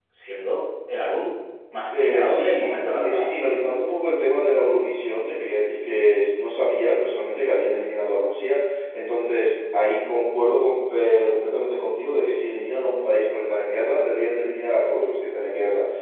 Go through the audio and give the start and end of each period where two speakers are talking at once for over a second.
1.9-3.2

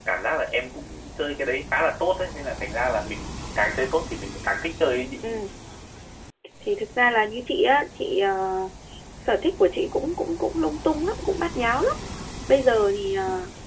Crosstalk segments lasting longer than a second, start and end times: none

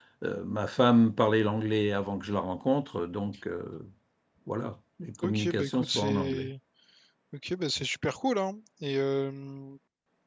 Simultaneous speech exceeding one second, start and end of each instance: 5.2-6.5

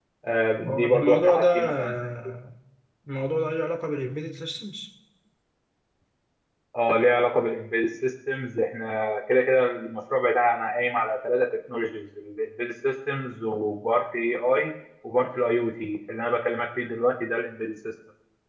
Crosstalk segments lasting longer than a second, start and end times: 0.7-1.9

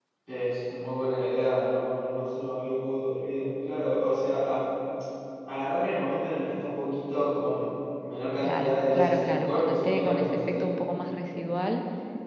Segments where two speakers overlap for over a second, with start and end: 8.4-10.7

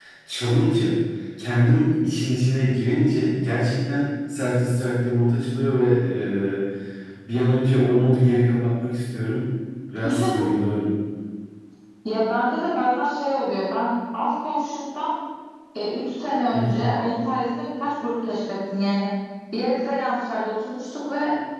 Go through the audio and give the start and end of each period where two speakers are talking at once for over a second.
none

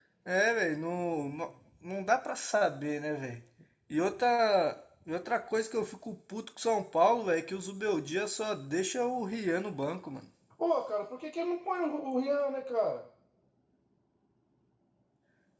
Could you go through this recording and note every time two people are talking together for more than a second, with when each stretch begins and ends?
none

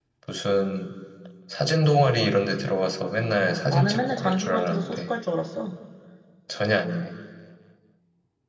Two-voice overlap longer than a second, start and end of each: 3.2-5.1

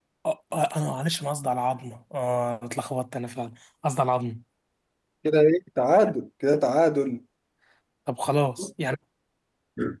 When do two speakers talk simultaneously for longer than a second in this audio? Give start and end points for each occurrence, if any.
none

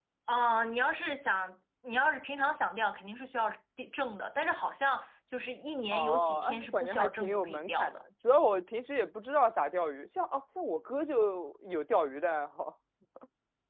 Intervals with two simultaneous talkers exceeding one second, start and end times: 5.9-7.9

